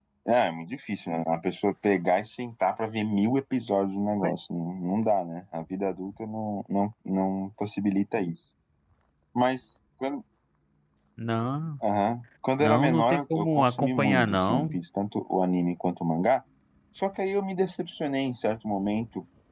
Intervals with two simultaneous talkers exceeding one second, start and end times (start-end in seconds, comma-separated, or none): 12.6-14.8